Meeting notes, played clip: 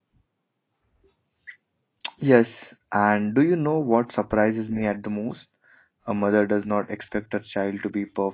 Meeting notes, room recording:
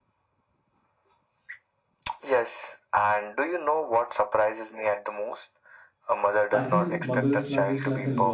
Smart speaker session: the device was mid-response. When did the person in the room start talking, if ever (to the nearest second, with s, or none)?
7 s